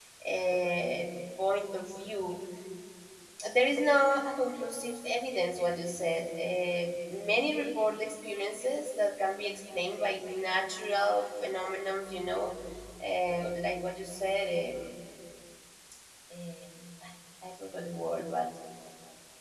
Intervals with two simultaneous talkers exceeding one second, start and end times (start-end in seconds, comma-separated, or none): none